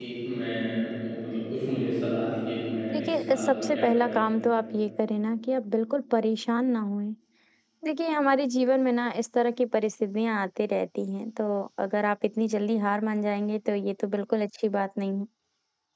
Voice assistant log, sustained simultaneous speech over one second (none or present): present